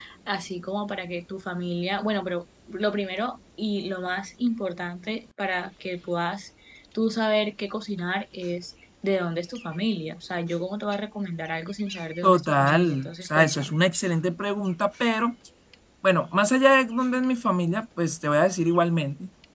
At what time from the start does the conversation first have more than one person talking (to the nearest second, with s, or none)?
12 s